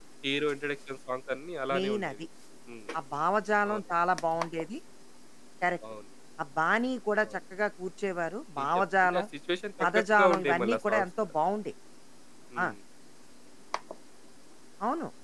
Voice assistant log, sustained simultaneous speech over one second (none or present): present